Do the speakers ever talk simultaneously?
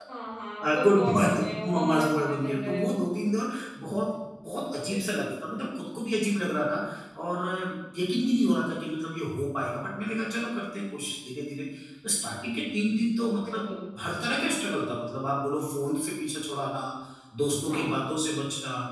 Yes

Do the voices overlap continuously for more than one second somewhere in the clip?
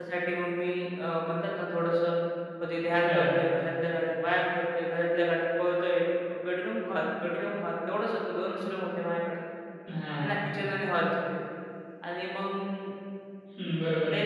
No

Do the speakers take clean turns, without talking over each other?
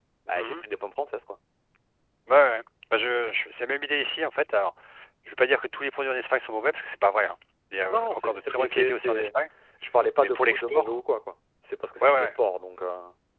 No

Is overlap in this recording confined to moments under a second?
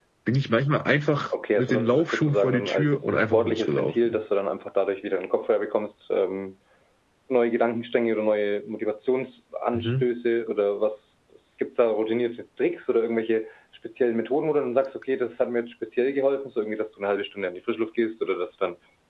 No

